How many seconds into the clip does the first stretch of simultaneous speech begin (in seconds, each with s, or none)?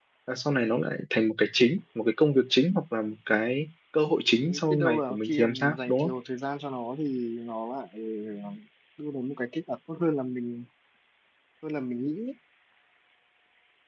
4.4 s